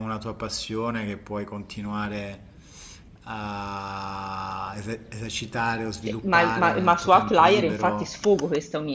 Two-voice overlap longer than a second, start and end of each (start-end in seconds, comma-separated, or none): 6.2-8.1